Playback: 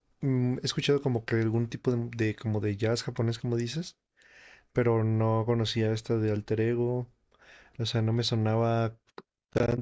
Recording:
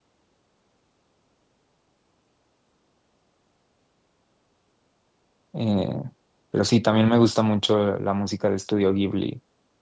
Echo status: none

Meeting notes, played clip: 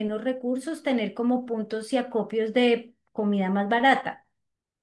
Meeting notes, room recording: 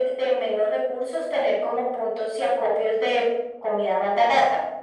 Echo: present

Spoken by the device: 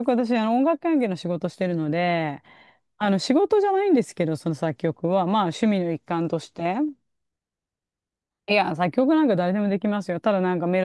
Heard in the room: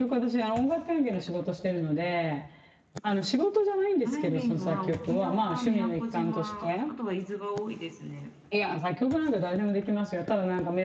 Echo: present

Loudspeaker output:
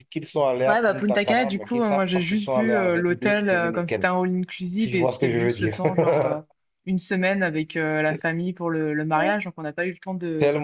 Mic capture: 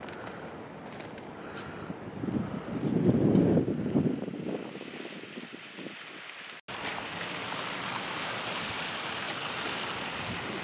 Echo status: none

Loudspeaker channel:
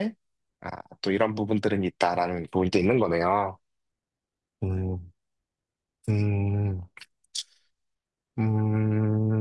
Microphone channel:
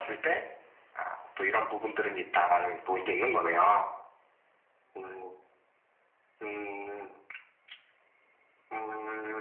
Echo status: present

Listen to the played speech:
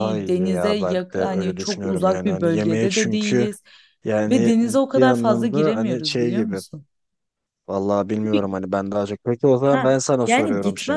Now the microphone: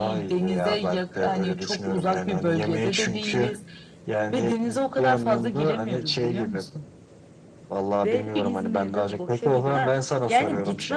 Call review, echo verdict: present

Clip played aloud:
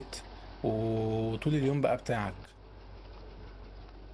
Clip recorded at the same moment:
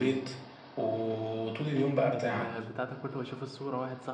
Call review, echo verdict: present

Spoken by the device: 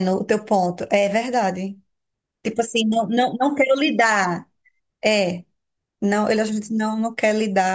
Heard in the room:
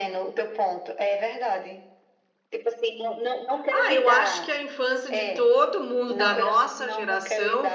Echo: present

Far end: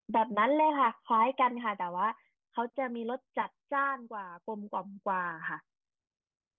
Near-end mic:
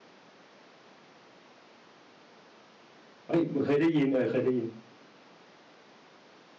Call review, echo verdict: none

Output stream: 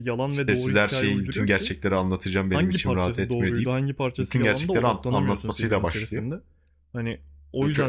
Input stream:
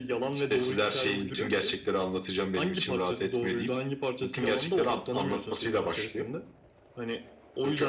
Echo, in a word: present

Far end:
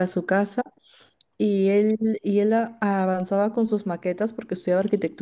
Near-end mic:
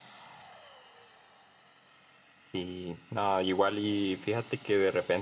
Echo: none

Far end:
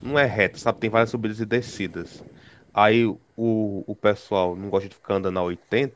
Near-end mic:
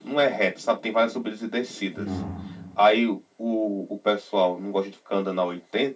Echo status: present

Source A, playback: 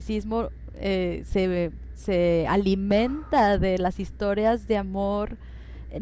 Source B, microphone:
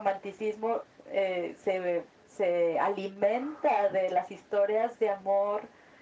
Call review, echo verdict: present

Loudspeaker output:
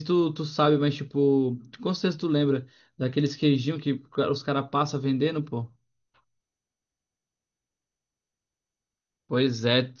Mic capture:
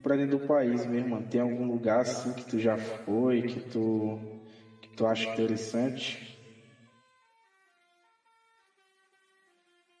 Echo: none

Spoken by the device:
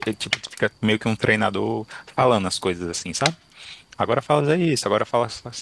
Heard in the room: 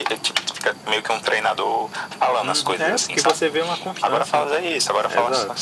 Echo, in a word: present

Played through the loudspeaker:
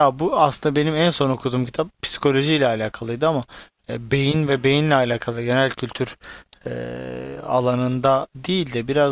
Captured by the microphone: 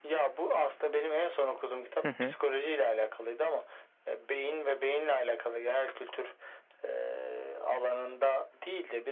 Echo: present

